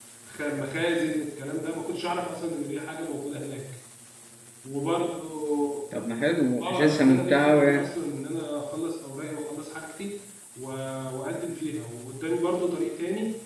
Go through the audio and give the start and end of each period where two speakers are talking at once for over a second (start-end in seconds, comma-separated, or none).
6.6-7.9